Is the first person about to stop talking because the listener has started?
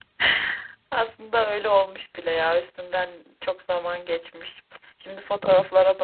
No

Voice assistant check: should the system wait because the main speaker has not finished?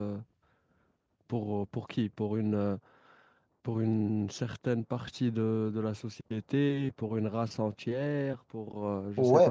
No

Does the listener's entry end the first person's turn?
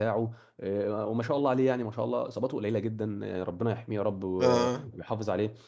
No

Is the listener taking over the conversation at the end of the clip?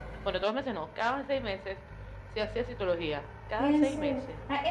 Yes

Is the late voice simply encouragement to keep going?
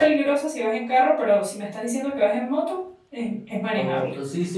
No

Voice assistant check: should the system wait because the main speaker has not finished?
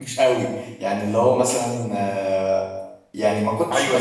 No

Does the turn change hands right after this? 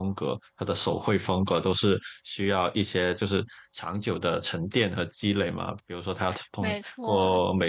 No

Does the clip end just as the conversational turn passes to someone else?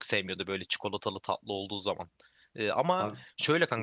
No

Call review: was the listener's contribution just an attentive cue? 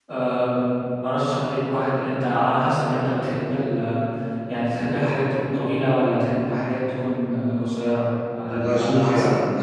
No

